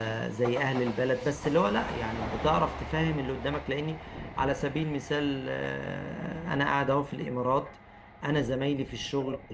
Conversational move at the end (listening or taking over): listening